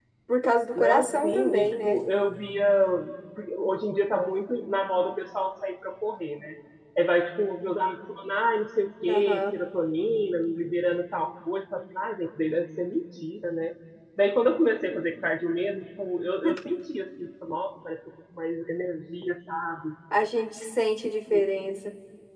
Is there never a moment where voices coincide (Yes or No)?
No